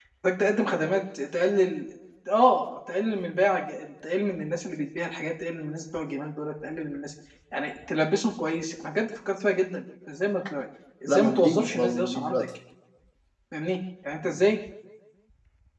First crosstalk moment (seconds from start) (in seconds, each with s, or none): 11.1 s